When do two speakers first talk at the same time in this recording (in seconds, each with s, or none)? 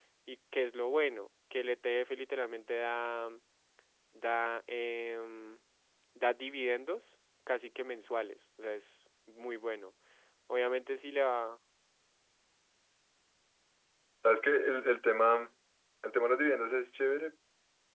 none